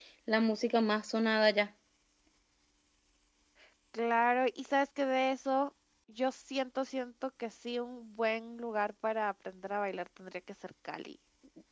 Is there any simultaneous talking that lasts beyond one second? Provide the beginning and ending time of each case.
none

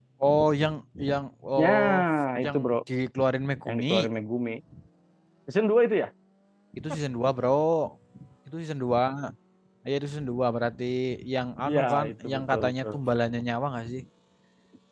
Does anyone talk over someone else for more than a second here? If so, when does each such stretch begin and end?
11.7-12.9

